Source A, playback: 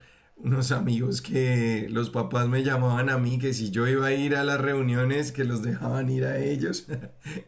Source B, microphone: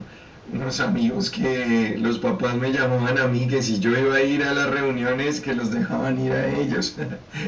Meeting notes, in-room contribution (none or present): none